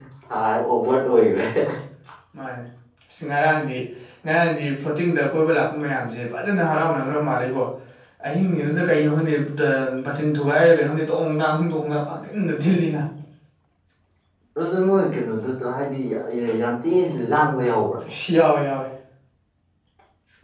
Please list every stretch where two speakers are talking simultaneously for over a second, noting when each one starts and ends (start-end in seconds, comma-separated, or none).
none